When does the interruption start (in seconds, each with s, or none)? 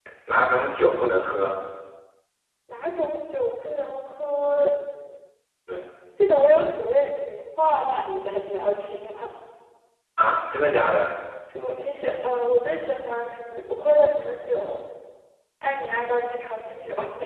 none